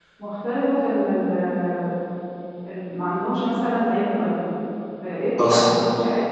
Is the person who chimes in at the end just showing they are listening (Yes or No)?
Yes